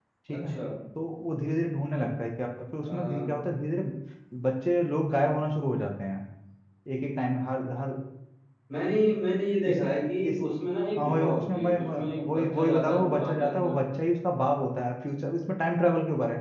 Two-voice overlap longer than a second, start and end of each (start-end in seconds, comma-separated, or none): 11.0-13.8